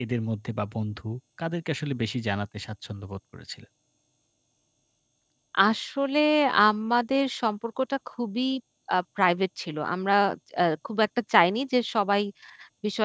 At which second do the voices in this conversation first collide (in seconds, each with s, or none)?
none